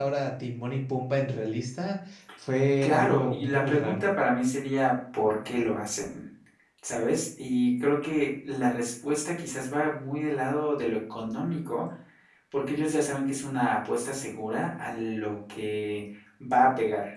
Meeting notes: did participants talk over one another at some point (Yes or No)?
Yes